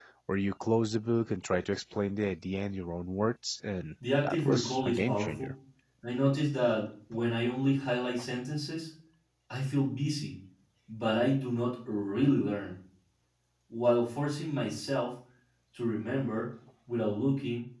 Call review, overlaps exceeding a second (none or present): present